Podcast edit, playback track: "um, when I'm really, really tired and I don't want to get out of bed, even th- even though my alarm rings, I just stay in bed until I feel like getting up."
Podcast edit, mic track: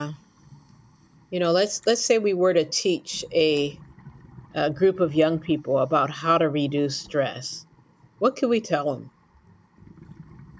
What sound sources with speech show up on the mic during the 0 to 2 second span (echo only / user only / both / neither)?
user only